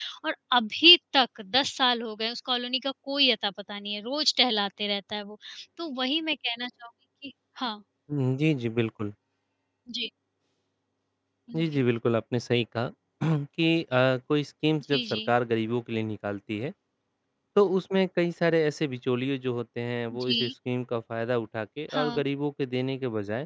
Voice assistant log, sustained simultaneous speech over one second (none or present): none